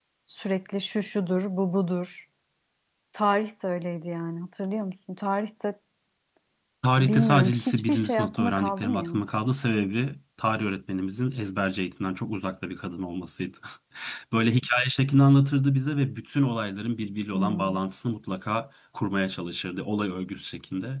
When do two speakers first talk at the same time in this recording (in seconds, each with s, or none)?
7.0 s